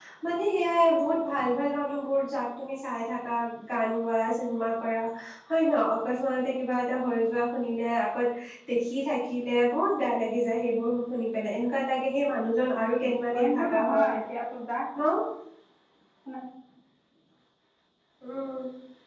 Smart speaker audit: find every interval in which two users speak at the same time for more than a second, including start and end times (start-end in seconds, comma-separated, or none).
12.8-14.1